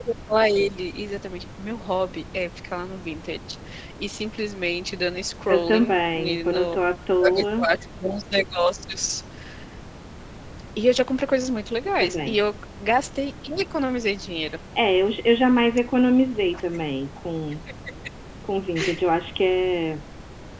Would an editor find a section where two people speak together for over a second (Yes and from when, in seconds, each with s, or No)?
Yes, from 5.5 s